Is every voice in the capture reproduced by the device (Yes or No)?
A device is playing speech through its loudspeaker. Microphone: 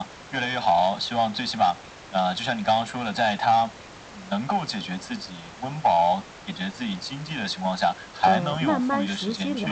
No